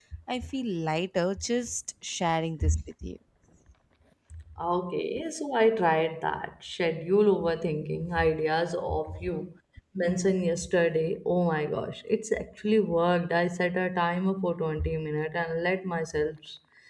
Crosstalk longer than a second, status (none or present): none